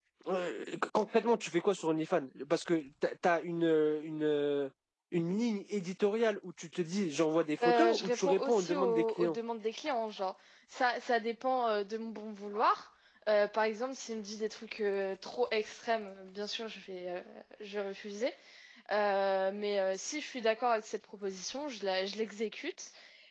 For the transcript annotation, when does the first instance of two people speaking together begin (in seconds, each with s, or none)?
7.6 s